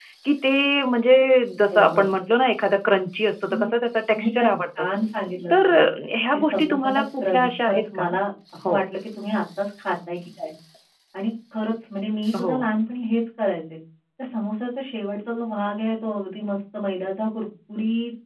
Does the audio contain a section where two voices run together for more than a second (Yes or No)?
Yes